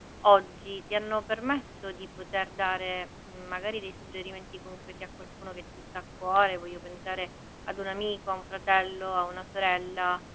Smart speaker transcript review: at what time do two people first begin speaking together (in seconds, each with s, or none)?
none